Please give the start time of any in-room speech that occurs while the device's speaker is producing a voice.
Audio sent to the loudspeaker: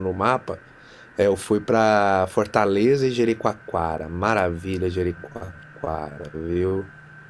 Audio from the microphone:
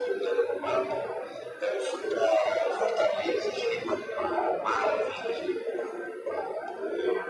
none

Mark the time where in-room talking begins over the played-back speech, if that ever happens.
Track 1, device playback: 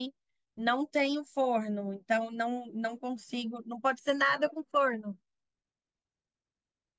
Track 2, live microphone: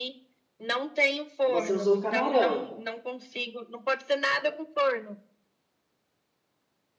1.5 s

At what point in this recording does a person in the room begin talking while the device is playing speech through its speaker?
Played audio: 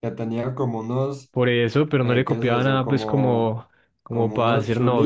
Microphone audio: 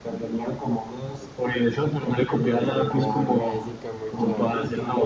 2.3 s

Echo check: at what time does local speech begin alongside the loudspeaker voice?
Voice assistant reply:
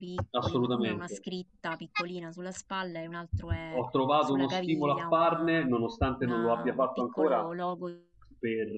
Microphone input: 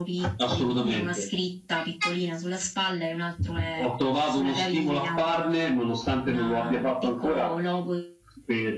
none

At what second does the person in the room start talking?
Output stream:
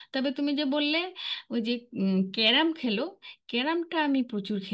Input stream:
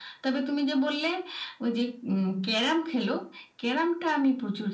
none

